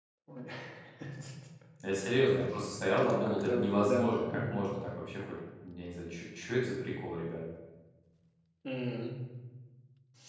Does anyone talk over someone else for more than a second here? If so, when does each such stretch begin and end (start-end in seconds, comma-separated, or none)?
2.9-4.6